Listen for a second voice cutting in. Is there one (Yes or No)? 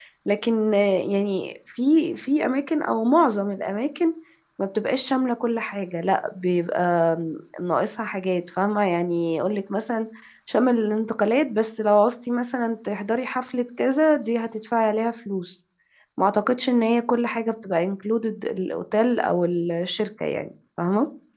No